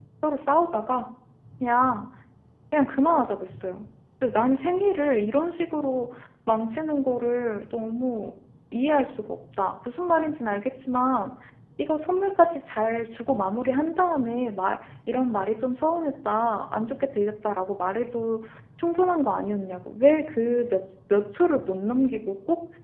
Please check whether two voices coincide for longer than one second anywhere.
No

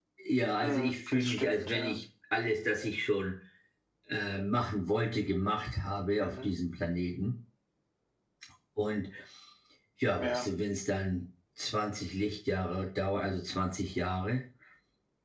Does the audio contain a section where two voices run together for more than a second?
Yes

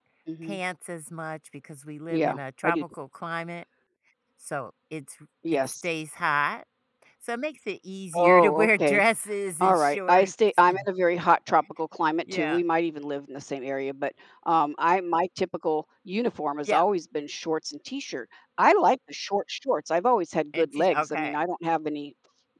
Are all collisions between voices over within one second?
No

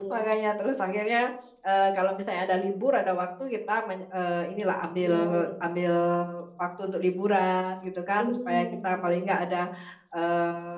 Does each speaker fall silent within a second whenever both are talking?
No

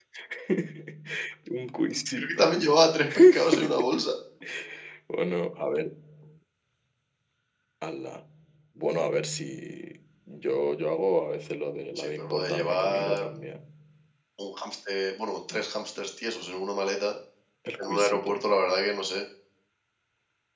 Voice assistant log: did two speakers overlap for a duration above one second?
Yes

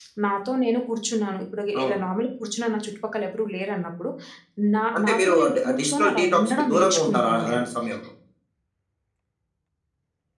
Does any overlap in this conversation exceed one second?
Yes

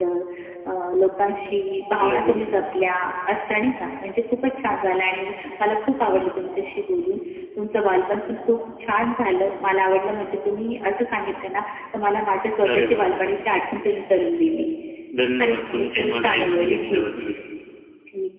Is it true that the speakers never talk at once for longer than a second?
No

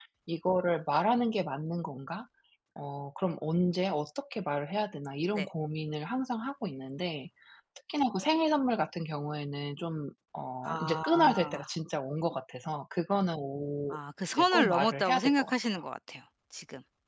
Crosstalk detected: Yes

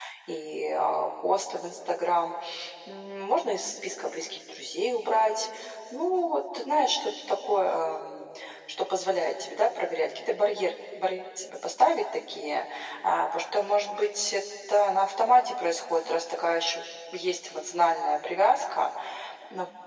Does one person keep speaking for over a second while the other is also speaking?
No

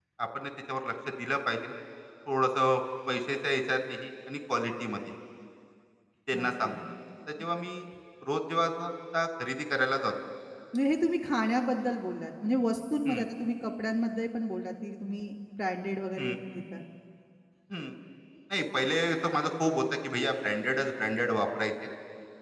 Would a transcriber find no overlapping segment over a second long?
Yes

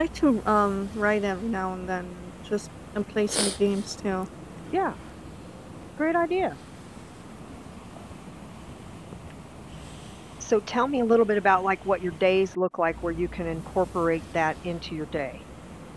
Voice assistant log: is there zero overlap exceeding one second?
Yes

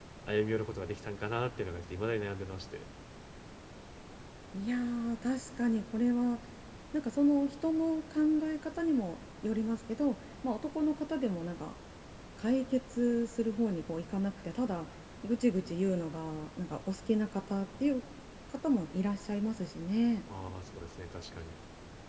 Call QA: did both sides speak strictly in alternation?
Yes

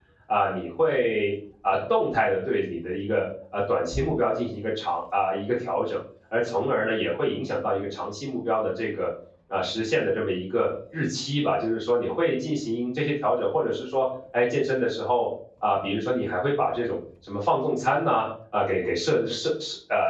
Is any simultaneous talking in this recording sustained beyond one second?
No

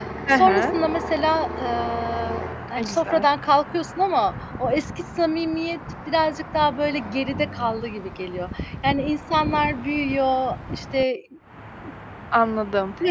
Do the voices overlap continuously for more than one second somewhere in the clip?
No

